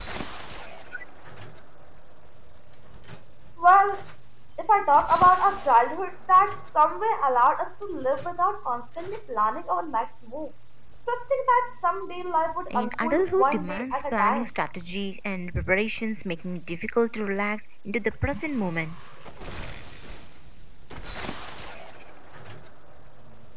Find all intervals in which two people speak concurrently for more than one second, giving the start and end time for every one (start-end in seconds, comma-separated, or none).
12.7-14.5